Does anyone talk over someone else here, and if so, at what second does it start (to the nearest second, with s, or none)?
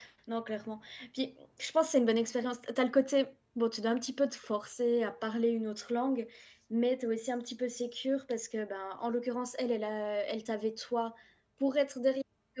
none